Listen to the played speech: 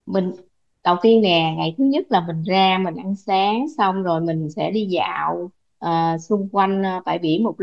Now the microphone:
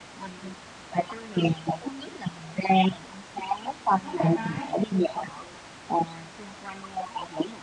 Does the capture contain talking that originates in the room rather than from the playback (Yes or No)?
Yes